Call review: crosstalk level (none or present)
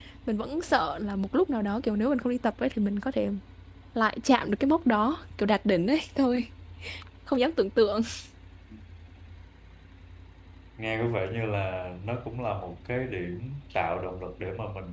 none